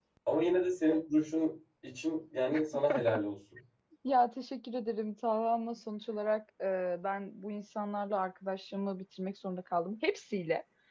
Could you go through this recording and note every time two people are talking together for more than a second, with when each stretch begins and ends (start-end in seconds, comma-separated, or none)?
none